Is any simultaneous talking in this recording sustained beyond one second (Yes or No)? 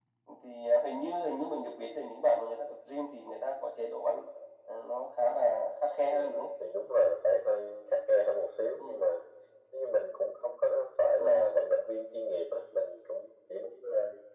No